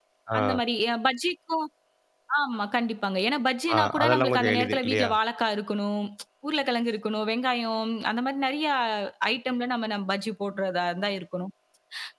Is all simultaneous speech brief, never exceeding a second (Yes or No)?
No